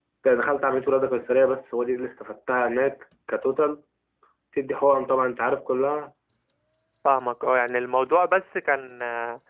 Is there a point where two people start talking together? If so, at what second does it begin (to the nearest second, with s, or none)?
none